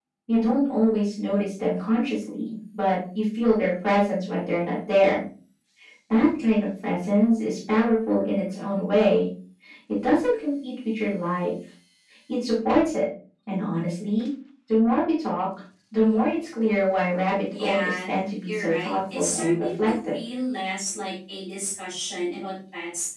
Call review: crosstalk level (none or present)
present